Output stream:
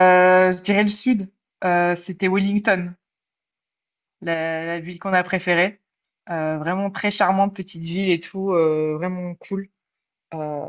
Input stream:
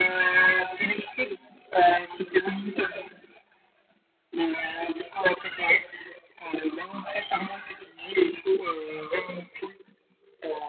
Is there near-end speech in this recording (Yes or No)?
No